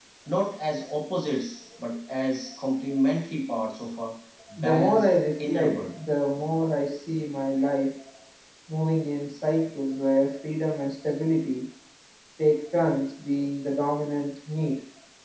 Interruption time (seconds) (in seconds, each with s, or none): 4.6 s